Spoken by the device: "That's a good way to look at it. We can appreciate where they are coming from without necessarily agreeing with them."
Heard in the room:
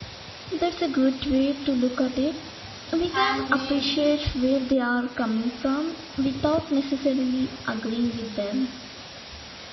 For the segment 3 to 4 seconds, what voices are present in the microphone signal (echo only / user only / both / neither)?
both